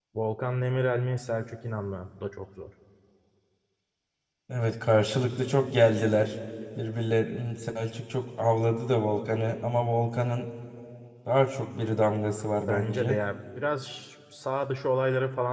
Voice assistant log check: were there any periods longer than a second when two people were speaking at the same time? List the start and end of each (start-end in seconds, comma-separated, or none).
none